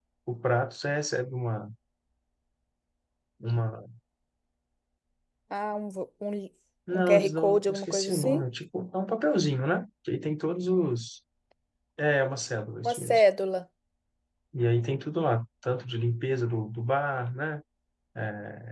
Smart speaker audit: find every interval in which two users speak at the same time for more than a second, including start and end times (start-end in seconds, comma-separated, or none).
6.9-8.4